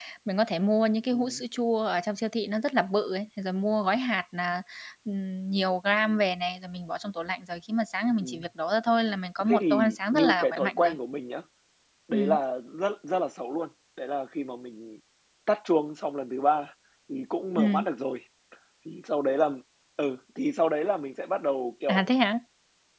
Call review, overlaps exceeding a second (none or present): present